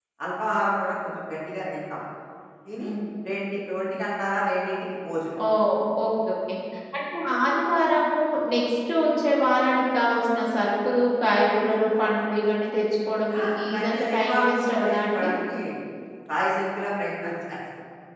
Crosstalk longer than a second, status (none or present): present